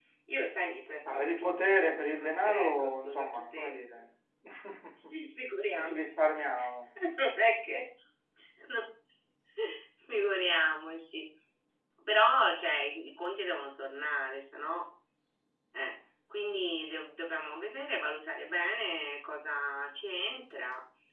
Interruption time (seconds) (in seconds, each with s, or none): 1.1 s